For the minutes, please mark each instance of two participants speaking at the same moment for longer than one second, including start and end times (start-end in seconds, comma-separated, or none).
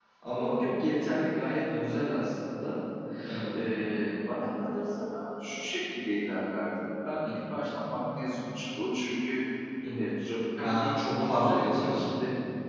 10.6-12.0